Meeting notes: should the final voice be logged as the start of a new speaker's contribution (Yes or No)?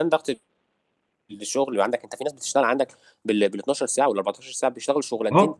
Yes